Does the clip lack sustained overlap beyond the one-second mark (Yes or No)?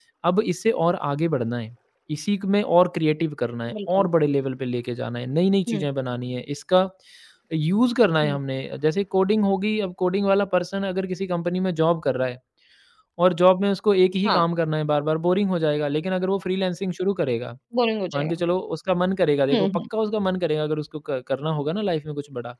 Yes